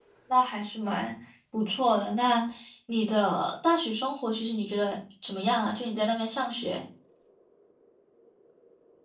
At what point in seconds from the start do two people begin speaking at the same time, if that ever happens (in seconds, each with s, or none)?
none